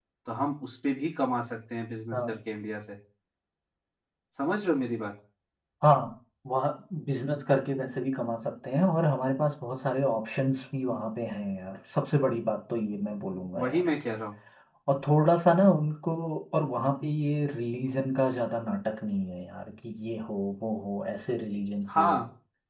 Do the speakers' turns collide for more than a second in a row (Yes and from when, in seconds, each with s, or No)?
No